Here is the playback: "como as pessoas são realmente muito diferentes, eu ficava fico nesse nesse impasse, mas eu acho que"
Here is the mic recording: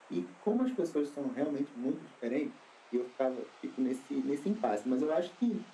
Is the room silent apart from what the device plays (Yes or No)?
Yes